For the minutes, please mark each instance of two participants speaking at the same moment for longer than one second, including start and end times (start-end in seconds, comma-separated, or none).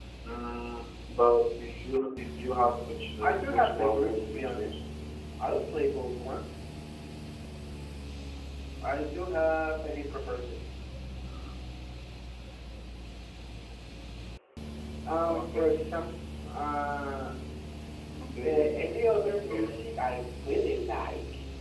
3.2-4.8, 18.4-19.9